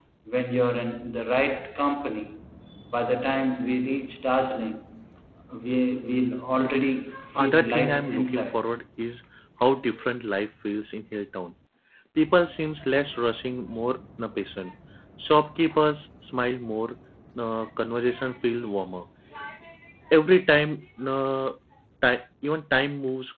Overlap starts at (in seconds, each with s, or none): 7.3 s